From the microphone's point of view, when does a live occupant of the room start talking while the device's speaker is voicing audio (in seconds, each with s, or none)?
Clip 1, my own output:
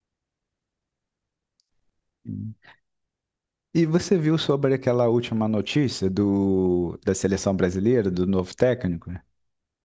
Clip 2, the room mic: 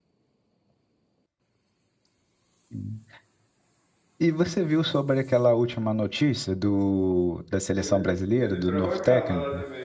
7.8 s